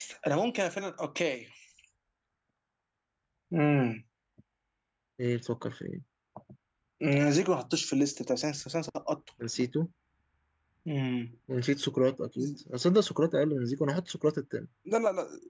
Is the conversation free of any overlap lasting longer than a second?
Yes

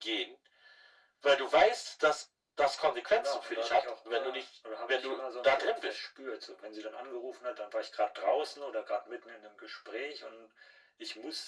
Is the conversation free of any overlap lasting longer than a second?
No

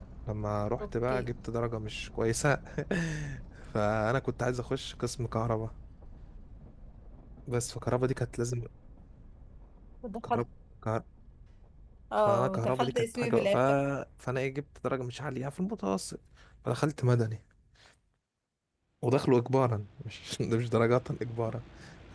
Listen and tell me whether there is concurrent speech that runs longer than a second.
Yes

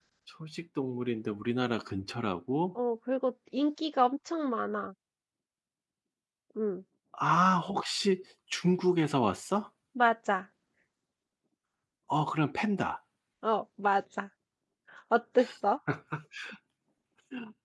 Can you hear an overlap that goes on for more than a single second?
No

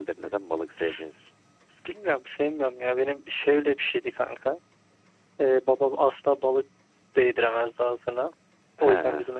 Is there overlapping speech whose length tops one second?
No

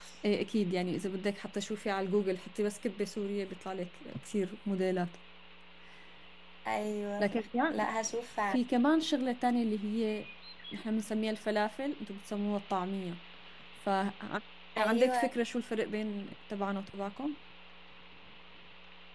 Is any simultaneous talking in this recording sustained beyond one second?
No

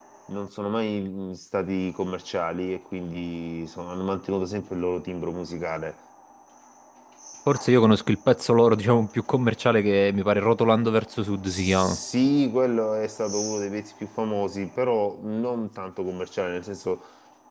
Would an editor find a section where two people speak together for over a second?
No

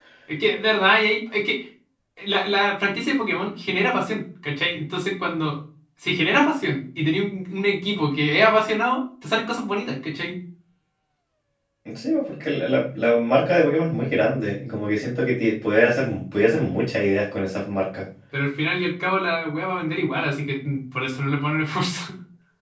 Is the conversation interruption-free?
Yes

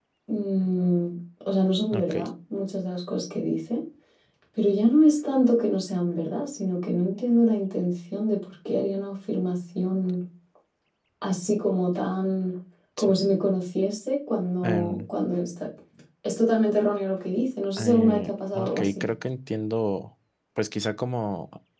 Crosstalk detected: Yes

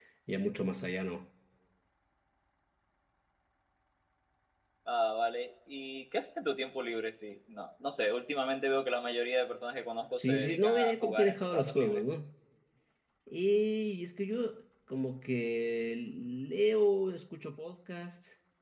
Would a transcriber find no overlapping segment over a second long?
No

